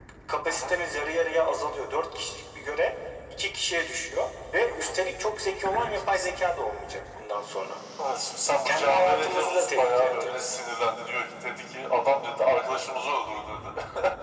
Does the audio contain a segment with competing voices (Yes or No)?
Yes